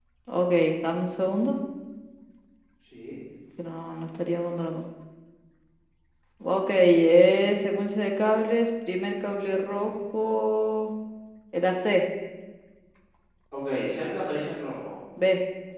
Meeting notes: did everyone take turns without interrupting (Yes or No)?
Yes